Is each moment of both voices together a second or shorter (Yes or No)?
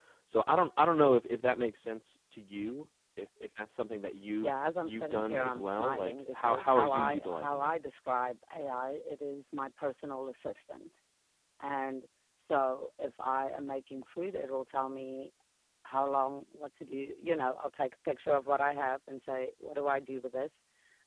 No